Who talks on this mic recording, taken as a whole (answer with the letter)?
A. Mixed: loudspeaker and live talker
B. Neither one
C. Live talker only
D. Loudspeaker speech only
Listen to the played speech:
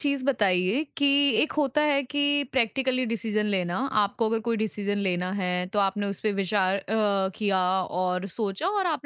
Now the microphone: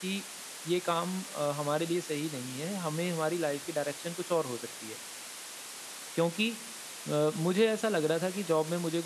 C